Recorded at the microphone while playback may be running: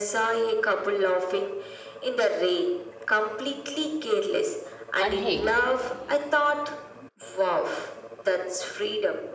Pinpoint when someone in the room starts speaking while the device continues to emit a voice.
5.0 s

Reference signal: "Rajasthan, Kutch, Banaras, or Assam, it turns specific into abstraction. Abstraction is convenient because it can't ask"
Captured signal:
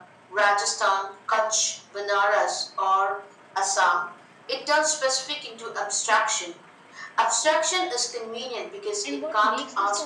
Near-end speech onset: 9.0 s

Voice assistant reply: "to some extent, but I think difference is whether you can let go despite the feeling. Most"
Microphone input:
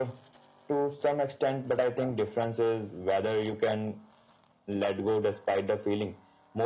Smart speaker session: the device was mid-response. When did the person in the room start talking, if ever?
none

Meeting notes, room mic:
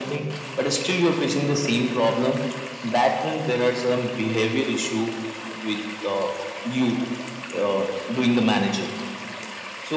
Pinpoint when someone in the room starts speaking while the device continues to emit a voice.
none

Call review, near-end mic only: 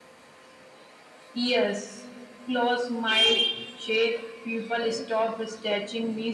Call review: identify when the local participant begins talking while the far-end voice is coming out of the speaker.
none

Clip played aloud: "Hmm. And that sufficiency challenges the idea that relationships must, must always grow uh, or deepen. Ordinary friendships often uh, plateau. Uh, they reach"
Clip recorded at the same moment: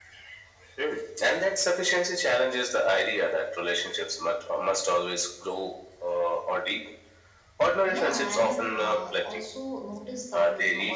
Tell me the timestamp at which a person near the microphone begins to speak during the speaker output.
7.8 s

